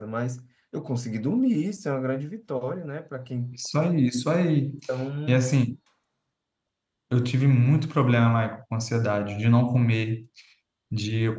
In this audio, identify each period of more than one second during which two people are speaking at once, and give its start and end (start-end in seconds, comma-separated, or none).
none